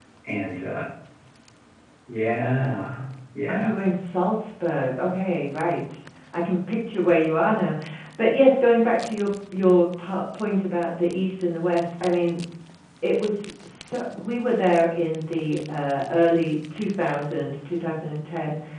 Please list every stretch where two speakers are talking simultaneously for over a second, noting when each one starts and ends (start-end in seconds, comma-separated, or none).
none